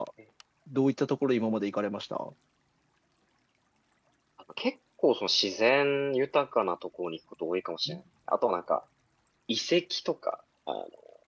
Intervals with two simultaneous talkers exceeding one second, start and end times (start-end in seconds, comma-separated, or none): none